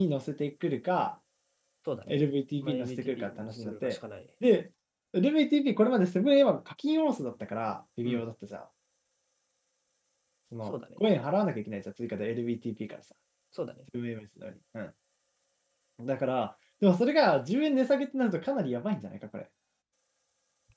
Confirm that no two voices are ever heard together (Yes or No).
No